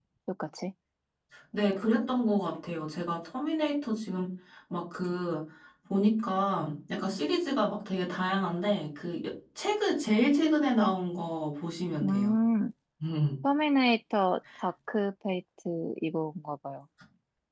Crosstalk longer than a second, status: none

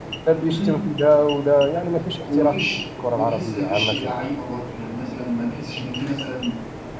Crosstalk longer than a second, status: present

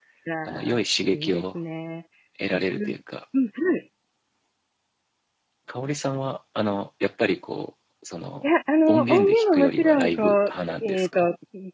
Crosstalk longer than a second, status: present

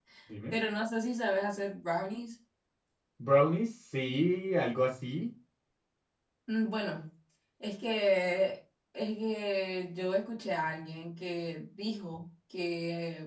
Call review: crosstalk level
none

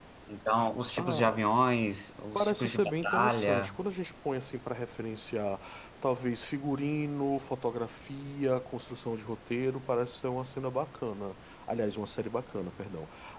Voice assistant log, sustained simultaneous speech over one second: present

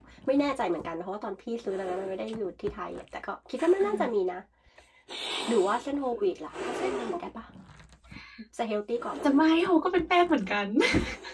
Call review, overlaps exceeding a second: none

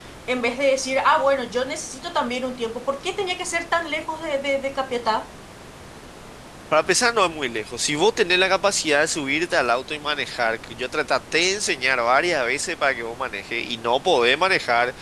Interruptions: none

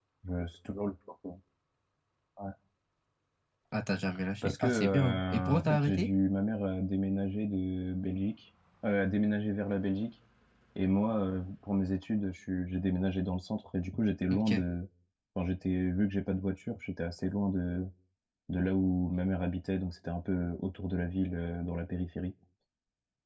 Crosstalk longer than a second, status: present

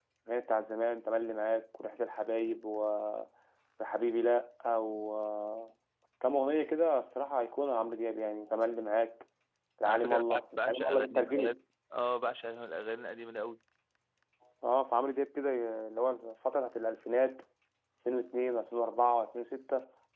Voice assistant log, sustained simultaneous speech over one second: present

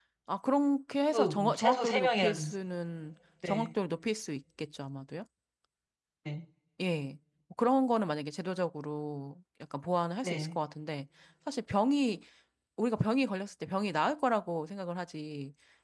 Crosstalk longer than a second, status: present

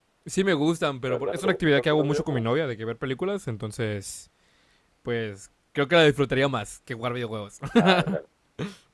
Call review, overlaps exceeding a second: present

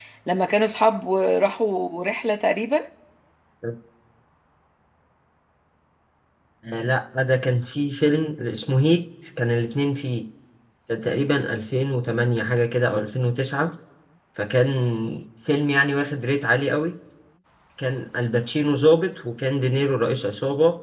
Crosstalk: none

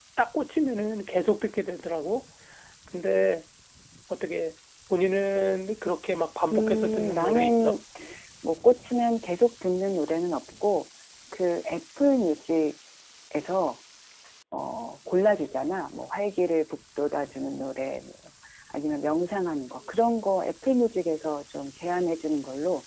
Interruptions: present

